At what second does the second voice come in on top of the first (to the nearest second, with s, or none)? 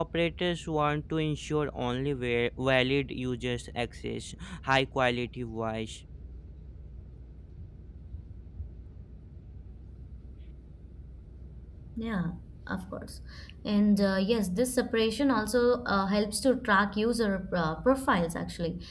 none